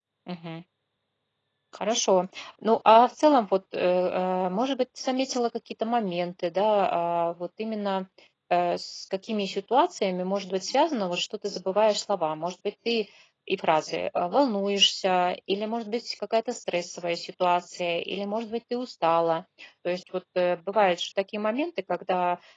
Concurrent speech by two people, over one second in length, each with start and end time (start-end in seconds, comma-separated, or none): none